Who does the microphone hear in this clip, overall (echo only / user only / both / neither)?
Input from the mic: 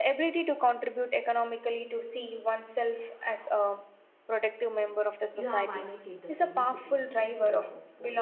both